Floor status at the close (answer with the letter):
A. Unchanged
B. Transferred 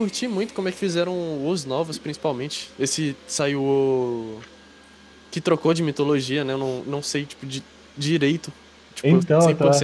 A